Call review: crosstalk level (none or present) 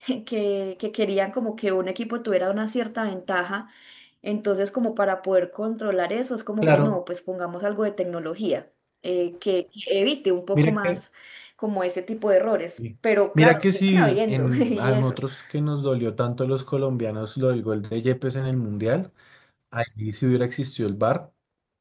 present